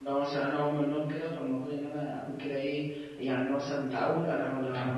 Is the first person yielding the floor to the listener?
No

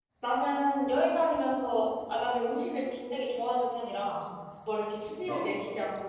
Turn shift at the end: No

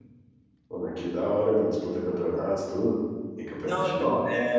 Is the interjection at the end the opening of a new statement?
Yes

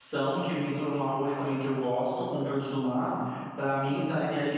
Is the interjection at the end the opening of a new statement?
No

